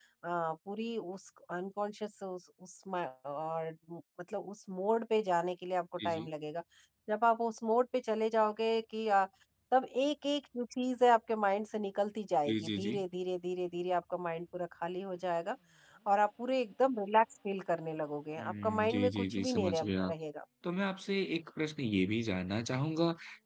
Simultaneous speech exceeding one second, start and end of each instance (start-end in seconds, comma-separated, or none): 18.4-20.1